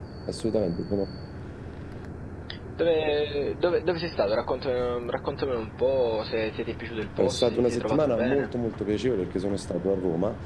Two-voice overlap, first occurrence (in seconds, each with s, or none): 7.2 s